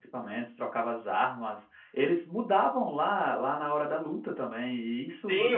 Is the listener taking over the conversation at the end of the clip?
Yes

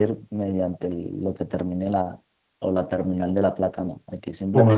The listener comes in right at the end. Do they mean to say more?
Yes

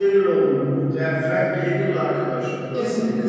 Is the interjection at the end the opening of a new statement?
Yes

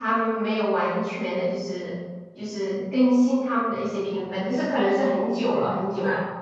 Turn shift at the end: Yes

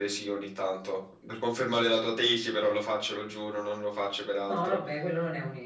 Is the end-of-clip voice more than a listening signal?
Yes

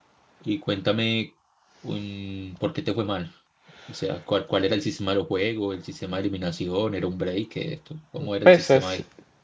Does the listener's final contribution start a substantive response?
Yes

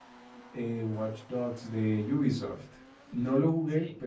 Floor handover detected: No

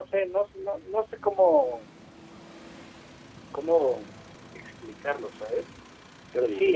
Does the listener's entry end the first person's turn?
No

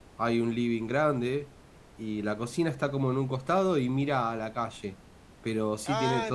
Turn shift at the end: Yes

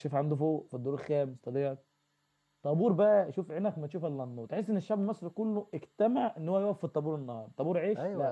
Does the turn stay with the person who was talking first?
No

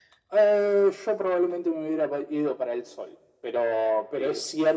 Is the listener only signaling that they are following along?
Yes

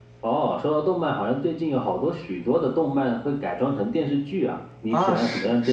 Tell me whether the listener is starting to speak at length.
Yes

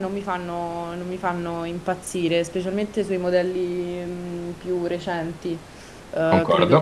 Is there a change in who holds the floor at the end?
No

